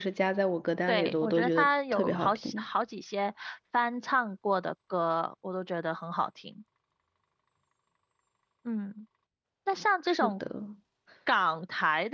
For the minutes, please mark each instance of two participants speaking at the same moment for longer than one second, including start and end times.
0.9-2.6

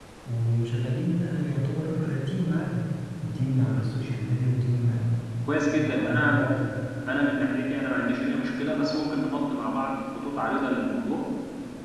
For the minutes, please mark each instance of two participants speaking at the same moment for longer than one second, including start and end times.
none

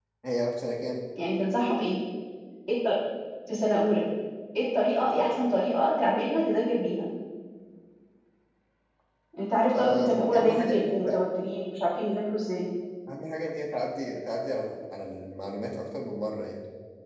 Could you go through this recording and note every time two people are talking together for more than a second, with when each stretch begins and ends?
9.8-11.2

